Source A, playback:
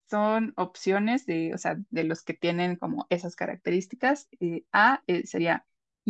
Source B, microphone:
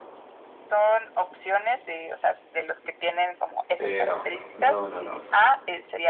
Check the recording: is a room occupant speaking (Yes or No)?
Yes